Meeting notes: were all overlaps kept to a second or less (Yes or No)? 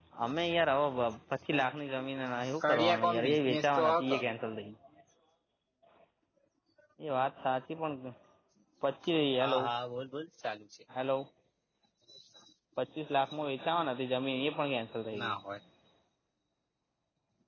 No